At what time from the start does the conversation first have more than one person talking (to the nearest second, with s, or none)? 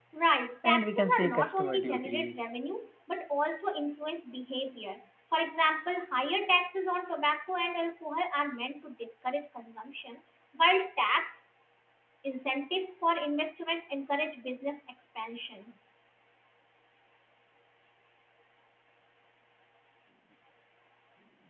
1 s